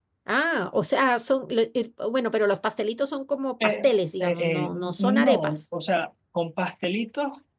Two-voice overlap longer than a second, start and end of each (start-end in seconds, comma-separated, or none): 3.6-5.6